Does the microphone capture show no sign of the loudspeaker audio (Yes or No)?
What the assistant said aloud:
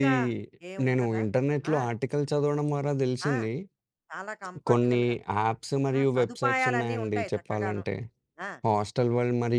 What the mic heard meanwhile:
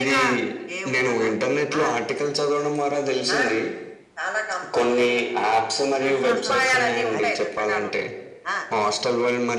No